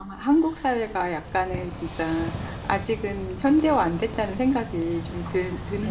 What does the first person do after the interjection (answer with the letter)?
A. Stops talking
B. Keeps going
A